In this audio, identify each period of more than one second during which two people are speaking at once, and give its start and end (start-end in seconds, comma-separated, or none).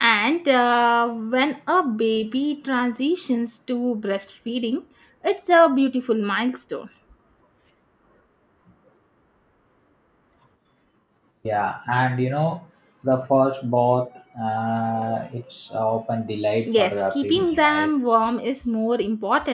16.6-17.9